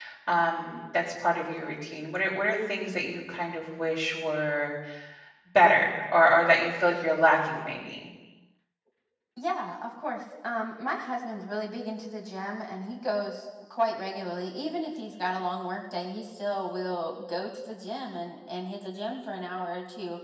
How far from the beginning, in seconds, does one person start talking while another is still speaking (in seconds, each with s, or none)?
none